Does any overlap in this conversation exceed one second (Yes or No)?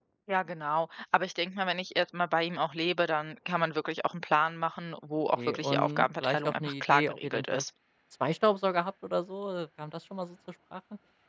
Yes